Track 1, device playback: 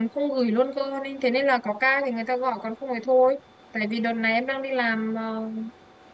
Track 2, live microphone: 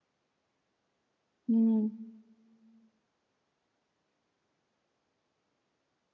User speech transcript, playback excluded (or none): ừ,